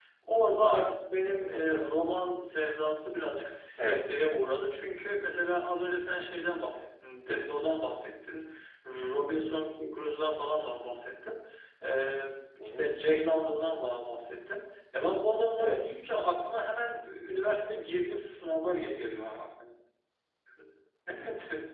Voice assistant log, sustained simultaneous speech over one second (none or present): none